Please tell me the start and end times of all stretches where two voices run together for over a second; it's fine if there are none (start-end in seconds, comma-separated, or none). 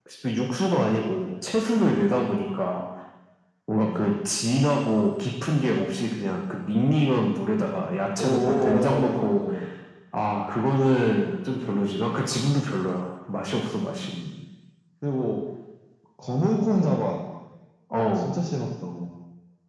8.2-9.4